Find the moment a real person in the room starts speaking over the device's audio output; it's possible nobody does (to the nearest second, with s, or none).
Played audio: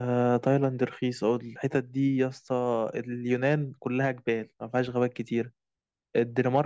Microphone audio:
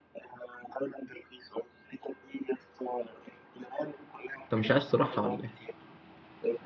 4 s